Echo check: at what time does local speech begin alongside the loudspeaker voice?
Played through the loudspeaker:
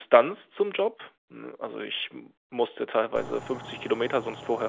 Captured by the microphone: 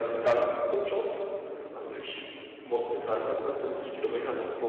none

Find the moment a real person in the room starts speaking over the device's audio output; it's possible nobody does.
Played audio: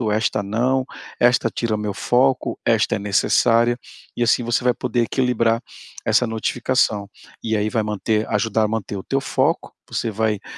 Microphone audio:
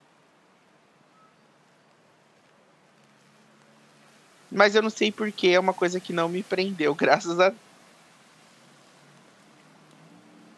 4.5 s

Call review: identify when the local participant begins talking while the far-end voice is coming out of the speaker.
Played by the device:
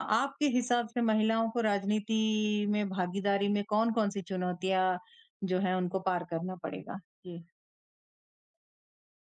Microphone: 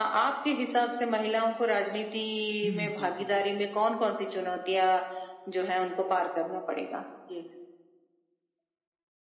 2.6 s

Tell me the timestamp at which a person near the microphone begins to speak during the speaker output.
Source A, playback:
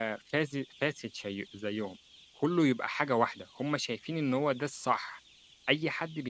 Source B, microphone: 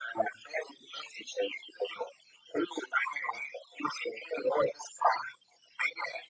none

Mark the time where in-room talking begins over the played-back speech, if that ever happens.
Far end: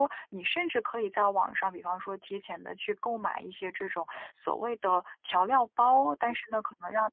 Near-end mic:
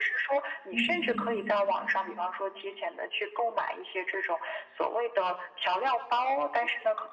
0.7 s

